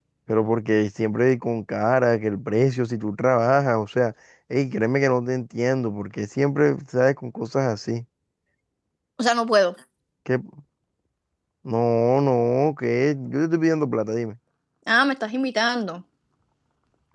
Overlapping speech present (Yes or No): No